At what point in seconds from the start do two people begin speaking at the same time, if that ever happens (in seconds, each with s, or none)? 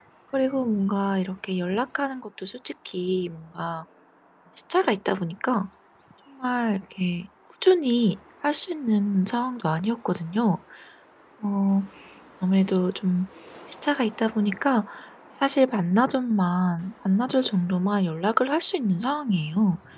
none